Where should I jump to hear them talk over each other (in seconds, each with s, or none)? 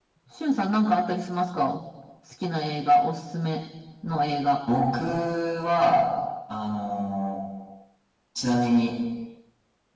none